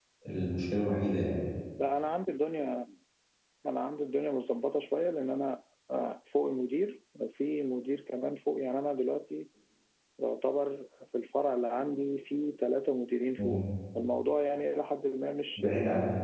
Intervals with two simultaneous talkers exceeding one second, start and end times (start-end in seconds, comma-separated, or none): none